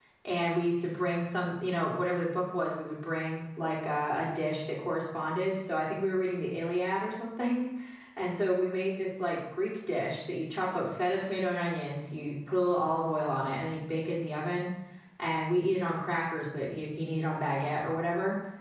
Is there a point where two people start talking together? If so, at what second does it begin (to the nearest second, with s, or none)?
none